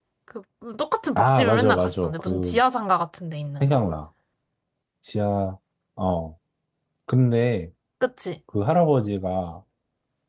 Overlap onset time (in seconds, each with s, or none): 1.2 s